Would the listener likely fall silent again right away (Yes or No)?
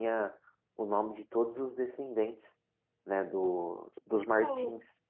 No